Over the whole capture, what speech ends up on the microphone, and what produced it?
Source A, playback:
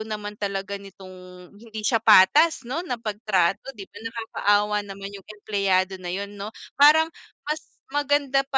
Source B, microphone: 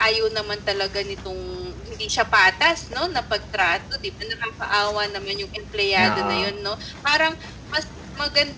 both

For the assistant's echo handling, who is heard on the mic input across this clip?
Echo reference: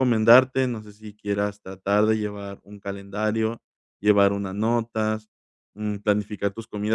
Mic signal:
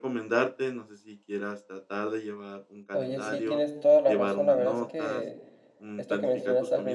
both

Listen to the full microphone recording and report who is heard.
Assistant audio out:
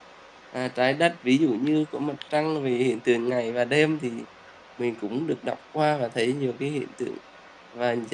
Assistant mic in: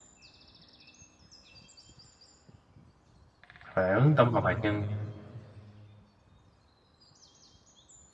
user only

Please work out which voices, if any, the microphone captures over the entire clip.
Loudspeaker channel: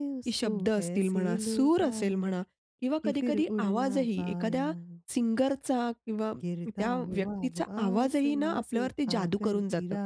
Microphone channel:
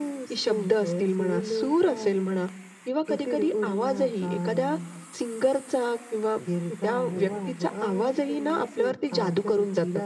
echo only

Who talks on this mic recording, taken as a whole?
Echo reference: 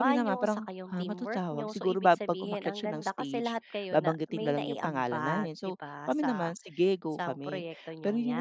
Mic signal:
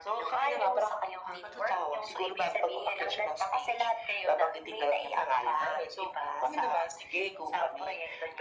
echo only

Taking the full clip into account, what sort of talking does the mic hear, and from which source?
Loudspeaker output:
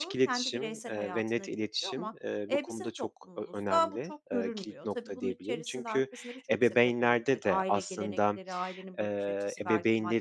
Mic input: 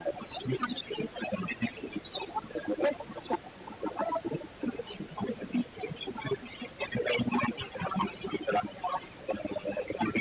echo only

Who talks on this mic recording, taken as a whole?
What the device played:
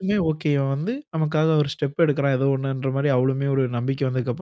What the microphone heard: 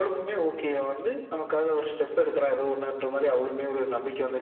echo only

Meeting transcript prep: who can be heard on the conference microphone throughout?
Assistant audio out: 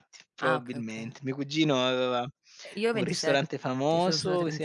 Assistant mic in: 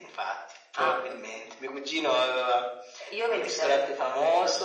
echo only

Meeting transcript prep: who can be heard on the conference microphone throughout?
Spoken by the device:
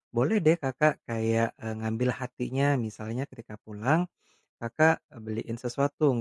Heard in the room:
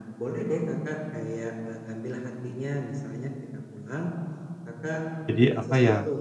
both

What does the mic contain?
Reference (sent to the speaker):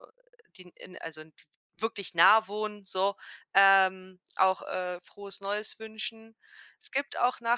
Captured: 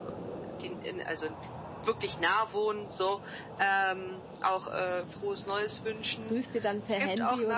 both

